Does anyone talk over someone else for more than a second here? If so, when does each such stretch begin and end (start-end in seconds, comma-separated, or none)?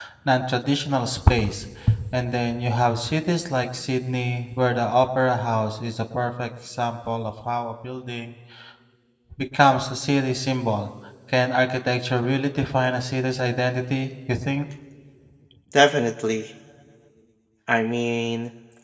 none